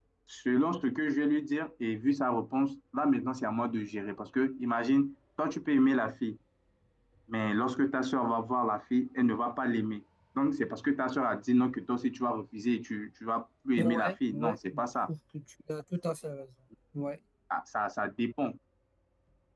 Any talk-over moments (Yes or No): Yes